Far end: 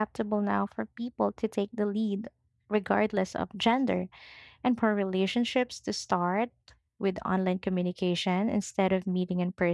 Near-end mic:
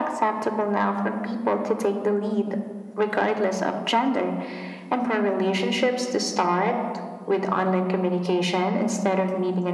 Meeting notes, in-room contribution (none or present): none